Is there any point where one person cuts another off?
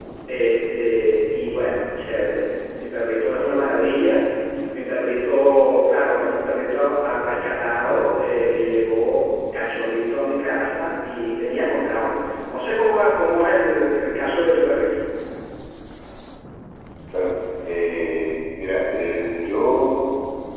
No

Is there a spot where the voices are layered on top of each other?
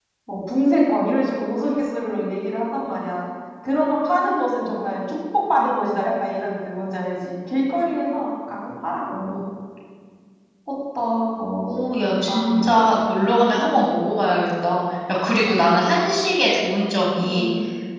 Yes, from 11.6 s

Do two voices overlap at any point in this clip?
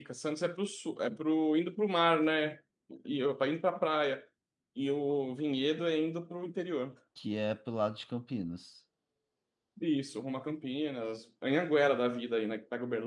No

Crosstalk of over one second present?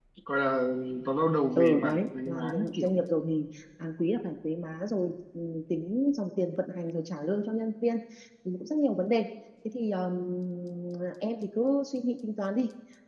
Yes, from 1.6 s

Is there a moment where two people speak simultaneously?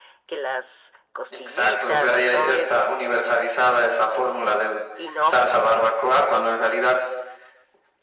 Yes, from 1.3 s

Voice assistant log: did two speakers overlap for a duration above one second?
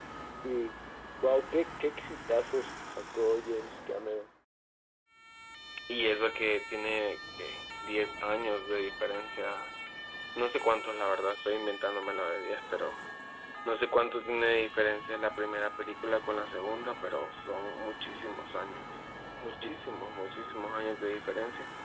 No

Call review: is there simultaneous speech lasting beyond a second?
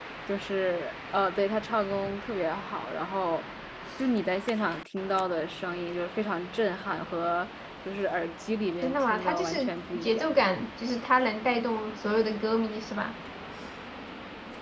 Yes, from 8.8 s

